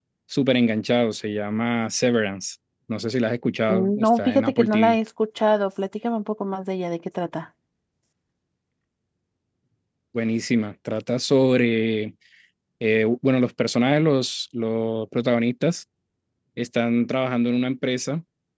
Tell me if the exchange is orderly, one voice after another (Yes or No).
No